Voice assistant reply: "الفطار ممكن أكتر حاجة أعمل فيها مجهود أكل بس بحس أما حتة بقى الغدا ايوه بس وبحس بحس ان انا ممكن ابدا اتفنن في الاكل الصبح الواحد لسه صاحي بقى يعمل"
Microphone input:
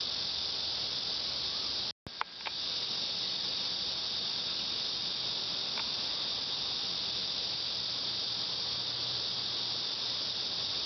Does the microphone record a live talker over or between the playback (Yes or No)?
No